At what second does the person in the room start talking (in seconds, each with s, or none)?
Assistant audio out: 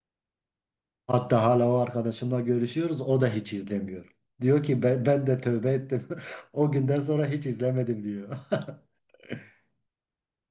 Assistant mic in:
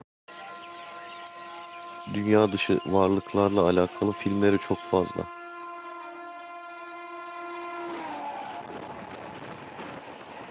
2.1 s